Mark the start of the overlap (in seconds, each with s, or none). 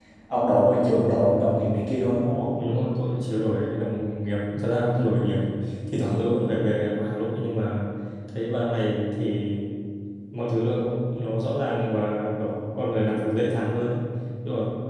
none